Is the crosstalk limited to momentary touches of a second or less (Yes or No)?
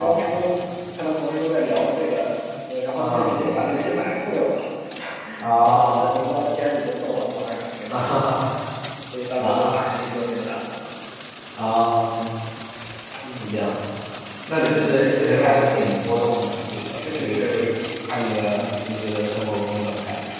No